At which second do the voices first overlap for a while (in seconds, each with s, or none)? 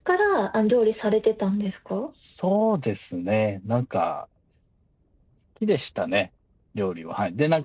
none